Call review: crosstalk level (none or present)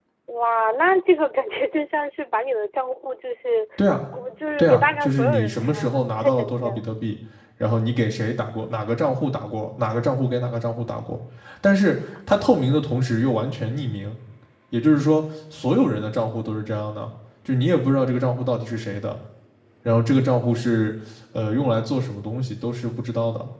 present